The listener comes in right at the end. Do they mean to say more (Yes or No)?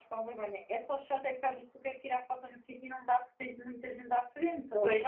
No